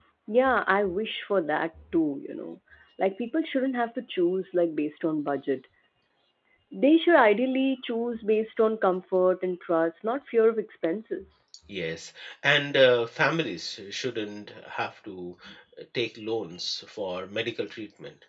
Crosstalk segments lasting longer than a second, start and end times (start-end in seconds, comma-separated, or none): none